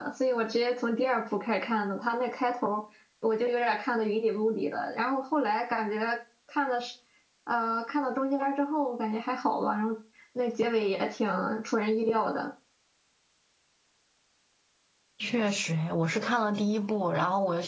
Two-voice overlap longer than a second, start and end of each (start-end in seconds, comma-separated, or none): none